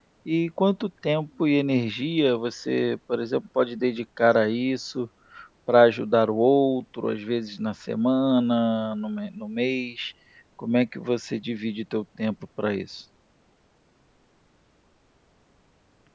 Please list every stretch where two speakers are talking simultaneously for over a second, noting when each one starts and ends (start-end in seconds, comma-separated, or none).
none